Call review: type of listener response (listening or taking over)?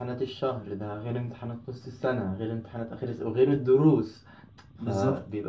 listening